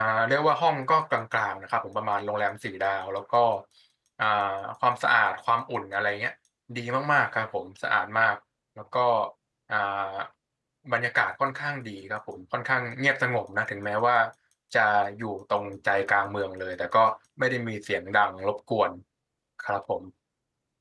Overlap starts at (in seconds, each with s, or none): none